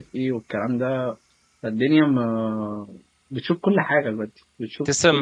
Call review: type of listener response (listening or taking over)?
taking over